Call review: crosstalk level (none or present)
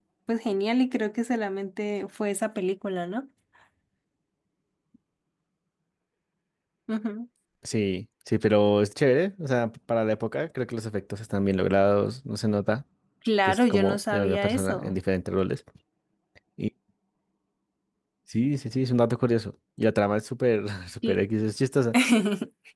present